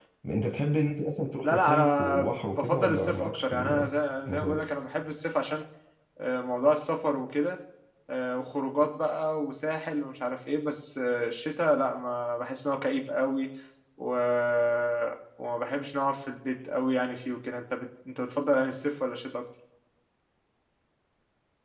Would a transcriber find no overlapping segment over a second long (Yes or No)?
No